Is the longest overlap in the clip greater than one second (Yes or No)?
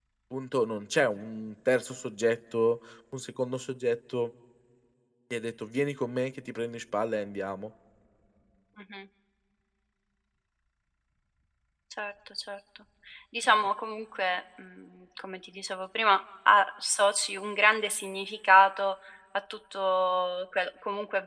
No